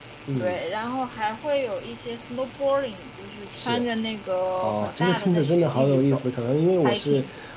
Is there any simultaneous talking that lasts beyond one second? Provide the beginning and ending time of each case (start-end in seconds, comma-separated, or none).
4.6-6.2